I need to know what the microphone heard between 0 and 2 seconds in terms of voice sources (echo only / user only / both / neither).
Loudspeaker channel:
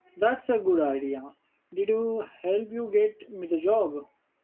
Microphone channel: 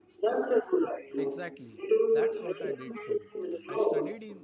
both